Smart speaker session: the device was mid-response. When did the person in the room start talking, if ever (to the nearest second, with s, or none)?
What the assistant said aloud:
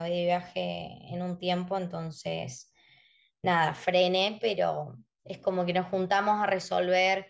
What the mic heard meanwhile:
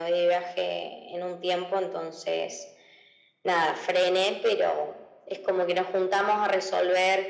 none